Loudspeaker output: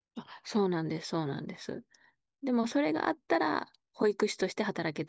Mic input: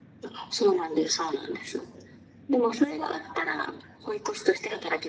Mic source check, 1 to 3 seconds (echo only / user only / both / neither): echo only